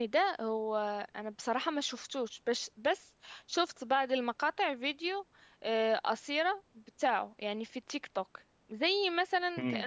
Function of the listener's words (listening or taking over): listening